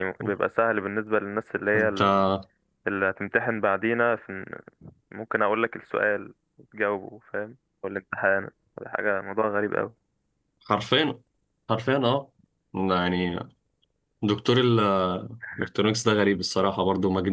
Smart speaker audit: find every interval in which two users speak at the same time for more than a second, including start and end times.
none

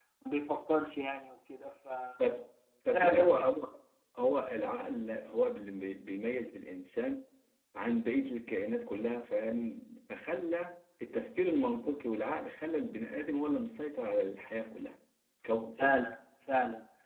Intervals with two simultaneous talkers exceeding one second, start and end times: none

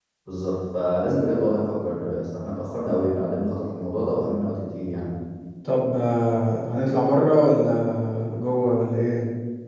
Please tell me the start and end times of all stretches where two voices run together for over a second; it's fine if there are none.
none

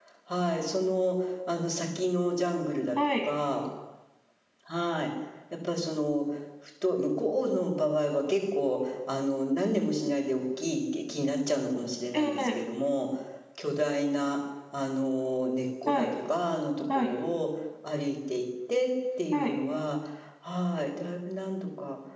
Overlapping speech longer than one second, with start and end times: none

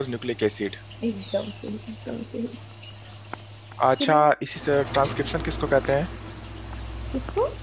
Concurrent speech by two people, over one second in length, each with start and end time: none

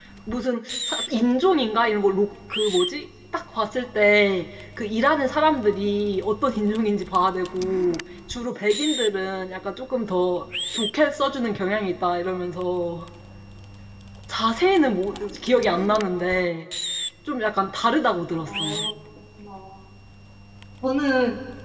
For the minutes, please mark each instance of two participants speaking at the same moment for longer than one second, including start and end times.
none

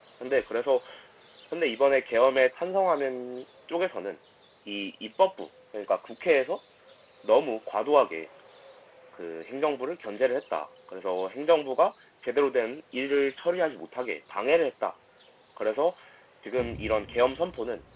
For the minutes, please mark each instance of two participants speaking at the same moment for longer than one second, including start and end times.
none

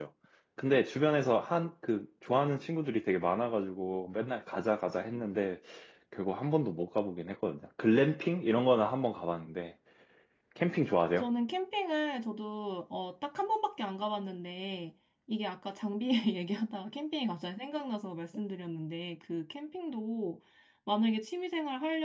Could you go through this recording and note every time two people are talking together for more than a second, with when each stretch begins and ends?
none

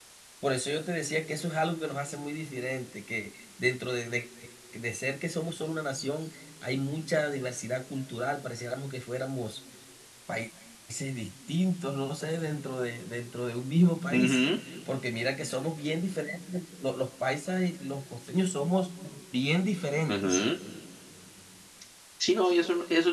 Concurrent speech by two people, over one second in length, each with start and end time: none

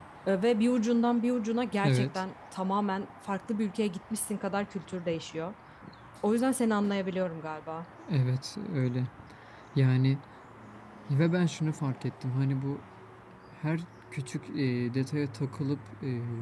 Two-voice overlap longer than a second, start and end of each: none

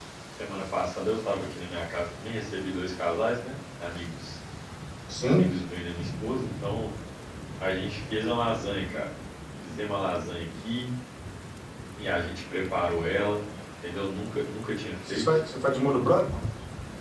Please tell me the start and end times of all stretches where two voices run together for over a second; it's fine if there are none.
none

